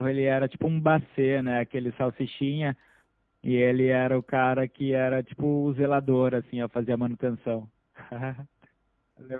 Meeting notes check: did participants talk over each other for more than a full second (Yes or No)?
No